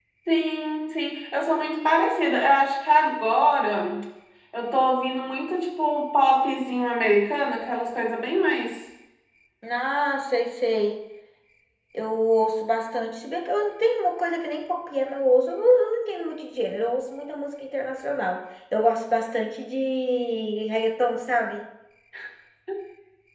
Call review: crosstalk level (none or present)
none